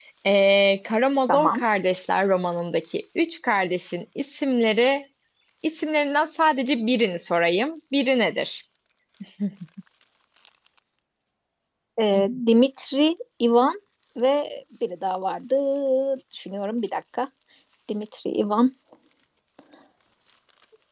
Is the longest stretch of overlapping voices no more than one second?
Yes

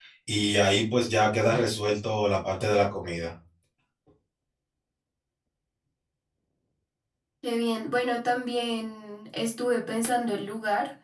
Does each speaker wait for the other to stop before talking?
Yes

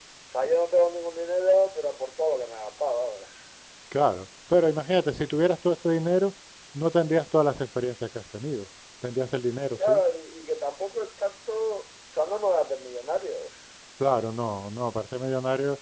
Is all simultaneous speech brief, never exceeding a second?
Yes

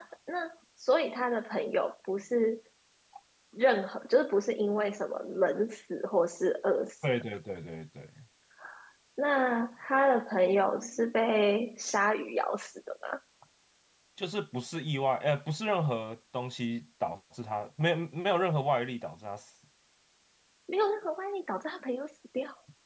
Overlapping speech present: No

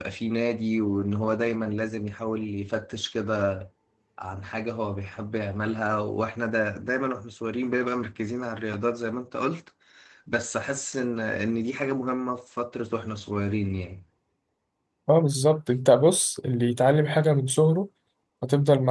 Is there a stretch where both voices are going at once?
No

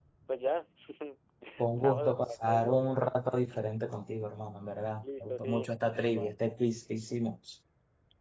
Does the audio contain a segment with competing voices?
Yes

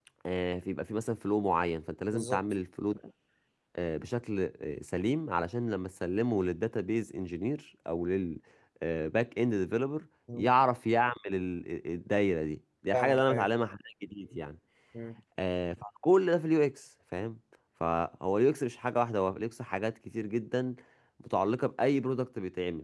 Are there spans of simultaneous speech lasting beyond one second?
No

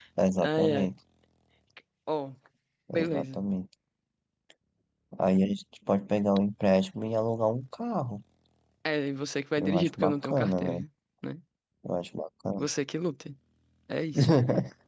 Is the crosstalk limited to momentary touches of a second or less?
No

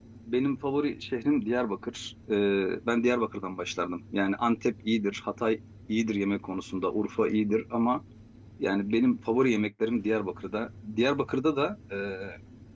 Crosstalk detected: No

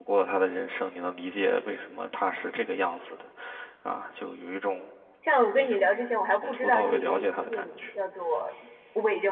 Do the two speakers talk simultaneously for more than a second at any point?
Yes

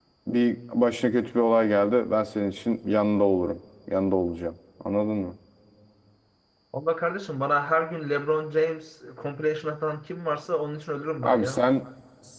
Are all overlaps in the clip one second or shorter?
Yes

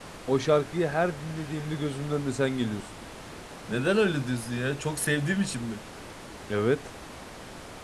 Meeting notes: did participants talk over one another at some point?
No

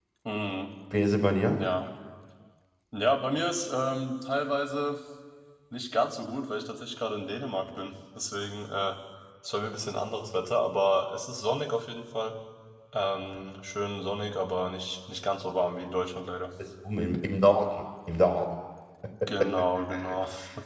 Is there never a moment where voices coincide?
Yes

